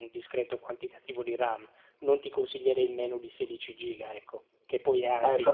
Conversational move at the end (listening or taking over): taking over